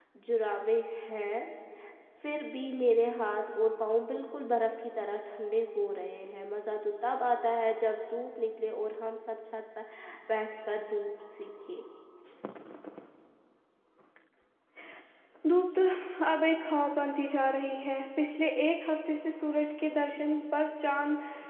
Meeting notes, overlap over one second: none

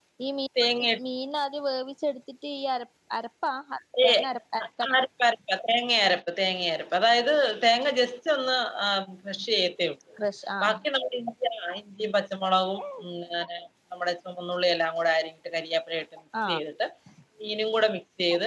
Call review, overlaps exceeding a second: none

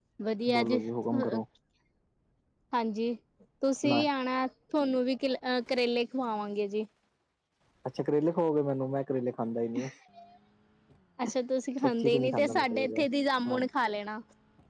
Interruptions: present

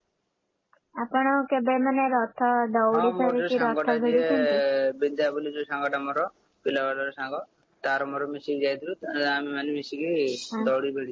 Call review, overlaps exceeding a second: present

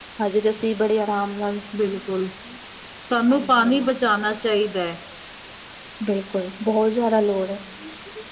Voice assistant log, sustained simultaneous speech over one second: none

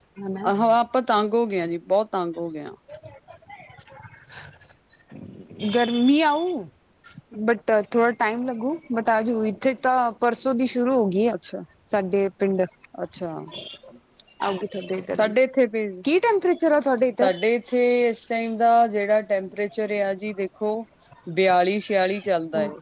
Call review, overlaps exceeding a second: none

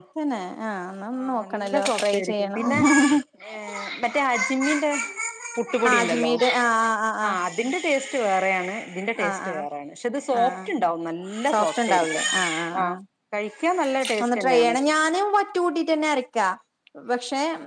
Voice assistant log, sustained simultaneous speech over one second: present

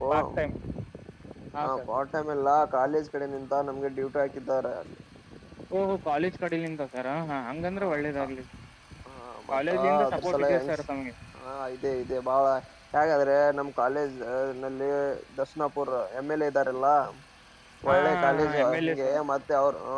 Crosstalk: present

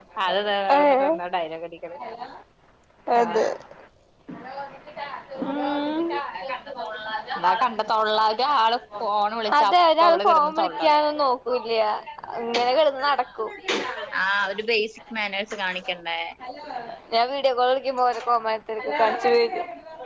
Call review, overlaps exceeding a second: present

